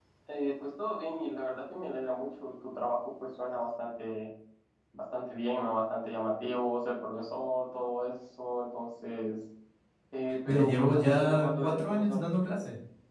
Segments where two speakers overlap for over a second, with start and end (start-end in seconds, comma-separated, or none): 10.5-12.2